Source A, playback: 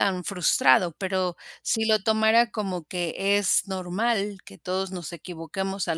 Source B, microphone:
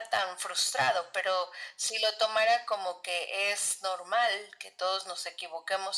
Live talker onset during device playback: none

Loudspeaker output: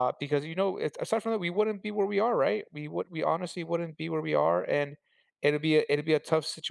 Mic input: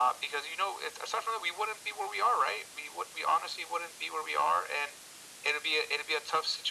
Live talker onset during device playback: none

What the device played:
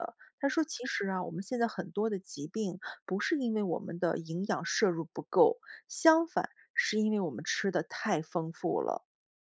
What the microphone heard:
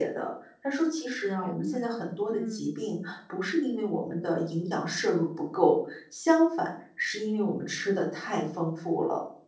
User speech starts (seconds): 1.2 s

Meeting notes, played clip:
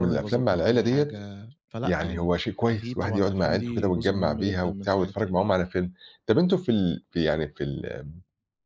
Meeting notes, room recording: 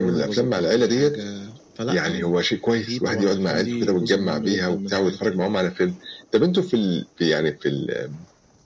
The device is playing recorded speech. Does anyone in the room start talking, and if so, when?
none

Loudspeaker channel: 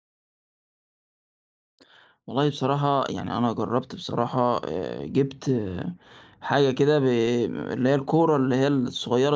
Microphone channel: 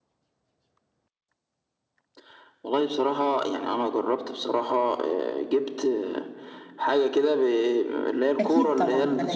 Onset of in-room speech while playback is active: 8.4 s

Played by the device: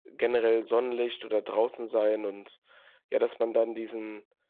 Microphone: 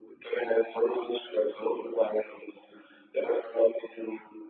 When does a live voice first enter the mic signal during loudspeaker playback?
none

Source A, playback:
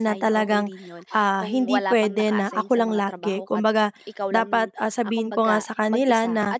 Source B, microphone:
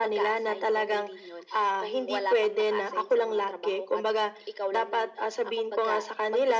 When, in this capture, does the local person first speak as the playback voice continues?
none

